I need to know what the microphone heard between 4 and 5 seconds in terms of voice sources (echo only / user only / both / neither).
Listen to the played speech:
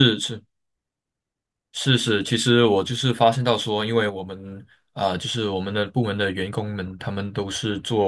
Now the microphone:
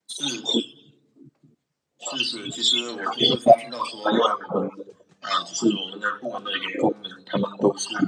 echo only